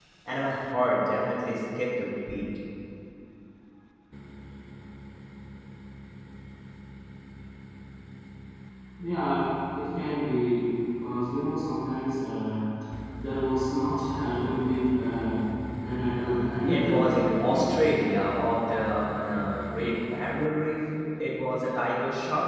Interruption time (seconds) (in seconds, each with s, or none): 16.2 s